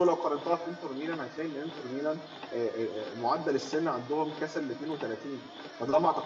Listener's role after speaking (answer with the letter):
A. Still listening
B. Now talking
A